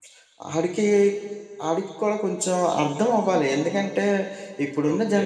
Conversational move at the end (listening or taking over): listening